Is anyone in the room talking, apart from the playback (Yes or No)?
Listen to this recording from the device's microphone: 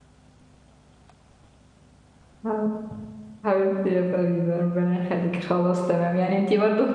Yes